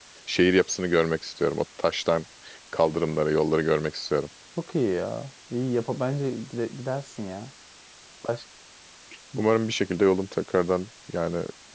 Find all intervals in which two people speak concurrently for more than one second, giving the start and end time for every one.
none

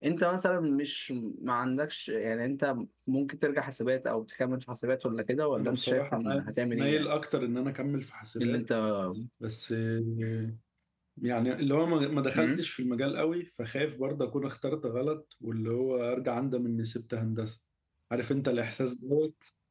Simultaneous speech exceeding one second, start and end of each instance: 5.6-7.1

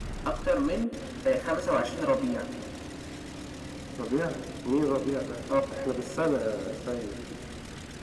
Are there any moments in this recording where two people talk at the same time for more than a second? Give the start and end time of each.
none

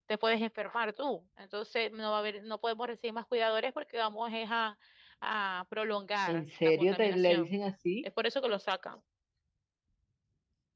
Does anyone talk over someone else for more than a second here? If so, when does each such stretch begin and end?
6.3-7.5

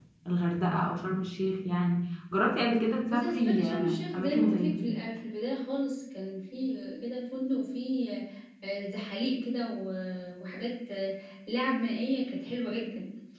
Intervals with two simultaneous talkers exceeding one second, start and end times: 3.1-4.9

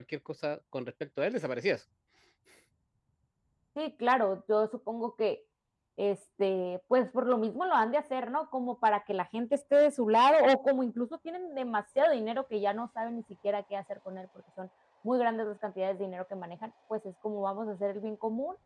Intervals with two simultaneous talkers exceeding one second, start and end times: none

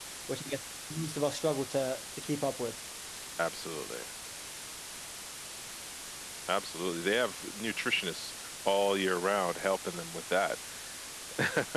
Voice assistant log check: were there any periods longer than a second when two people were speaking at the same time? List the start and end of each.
none

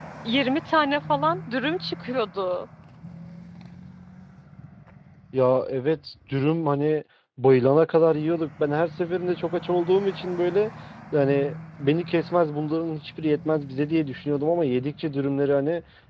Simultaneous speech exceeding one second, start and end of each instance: none

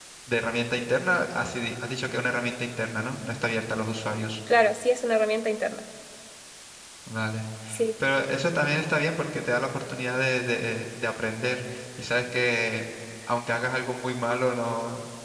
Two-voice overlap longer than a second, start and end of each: none

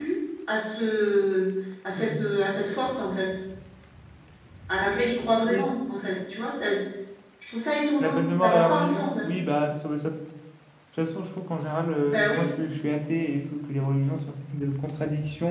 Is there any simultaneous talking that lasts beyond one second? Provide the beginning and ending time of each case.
8.0-9.3

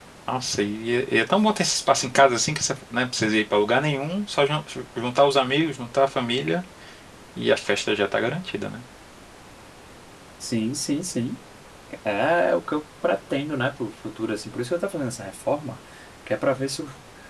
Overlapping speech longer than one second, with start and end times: none

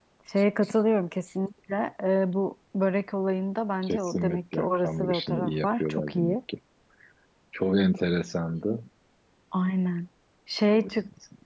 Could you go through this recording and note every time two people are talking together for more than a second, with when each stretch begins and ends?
3.8-6.4

